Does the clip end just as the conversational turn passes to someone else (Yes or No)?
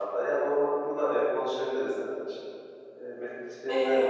Yes